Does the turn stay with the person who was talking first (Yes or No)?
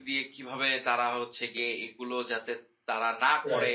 Yes